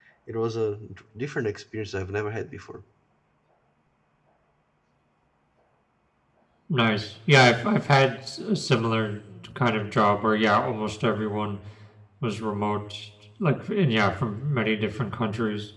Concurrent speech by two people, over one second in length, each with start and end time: none

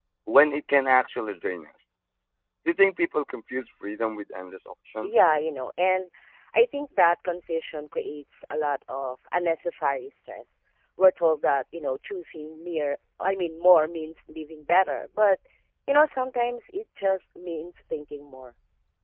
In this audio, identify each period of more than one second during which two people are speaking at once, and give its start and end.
none

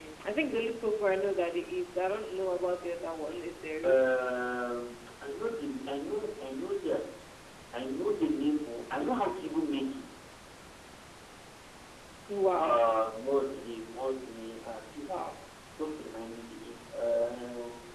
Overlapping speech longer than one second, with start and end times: none

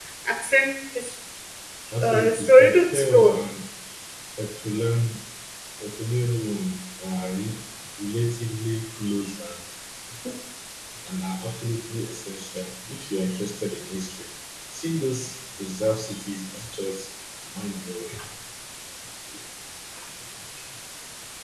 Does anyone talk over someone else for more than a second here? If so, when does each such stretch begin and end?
2.0-3.4

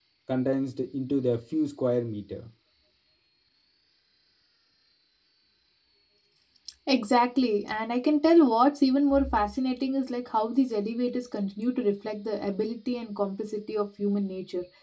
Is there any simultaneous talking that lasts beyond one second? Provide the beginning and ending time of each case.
none

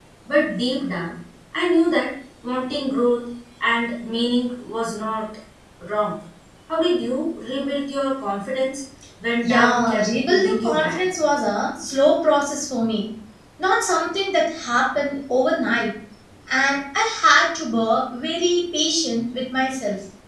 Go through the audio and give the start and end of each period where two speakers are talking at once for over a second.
9.4-11.0

